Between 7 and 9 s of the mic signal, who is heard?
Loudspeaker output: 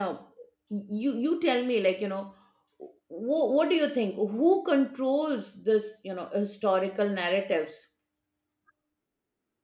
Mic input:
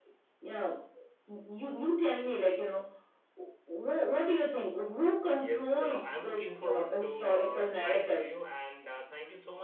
both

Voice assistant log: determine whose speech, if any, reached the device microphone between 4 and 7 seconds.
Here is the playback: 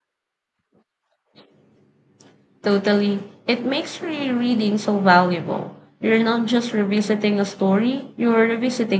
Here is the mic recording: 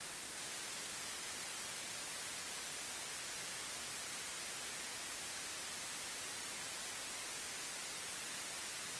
neither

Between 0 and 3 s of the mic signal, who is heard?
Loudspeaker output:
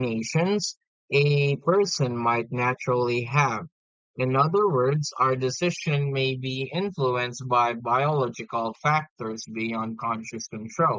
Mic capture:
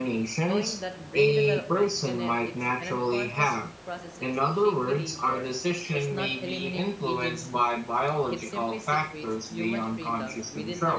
both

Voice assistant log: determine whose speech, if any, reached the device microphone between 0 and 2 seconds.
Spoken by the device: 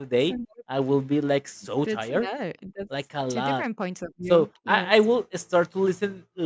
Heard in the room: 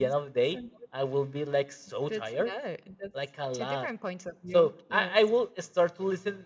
echo only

